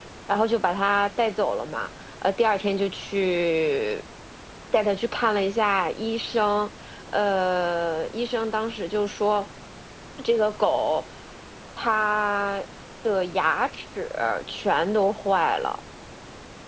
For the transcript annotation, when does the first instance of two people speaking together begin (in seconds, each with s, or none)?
none